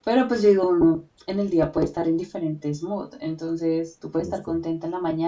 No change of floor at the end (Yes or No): Yes